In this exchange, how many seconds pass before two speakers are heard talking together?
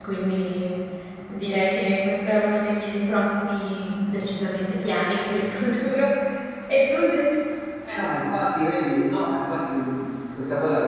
none

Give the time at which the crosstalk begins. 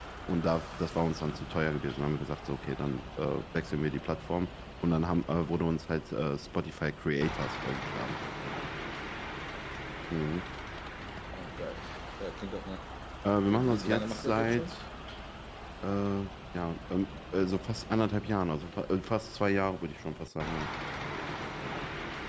13.5 s

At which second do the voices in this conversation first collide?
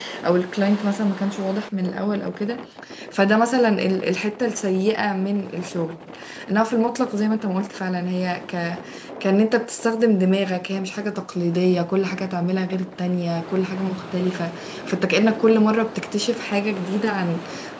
none

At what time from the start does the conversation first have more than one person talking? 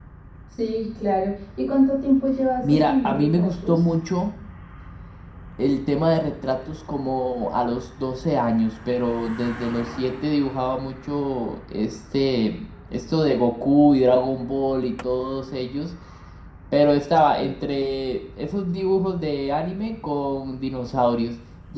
2.6 s

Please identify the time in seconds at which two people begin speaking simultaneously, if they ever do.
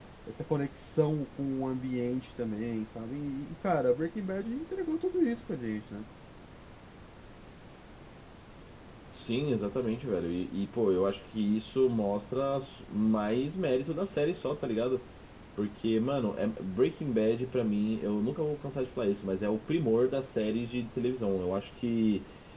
none

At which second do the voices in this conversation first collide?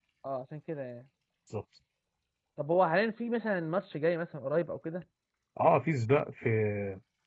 none

